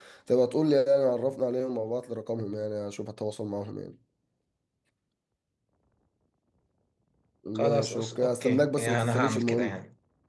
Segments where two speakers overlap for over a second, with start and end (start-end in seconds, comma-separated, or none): 7.6-9.8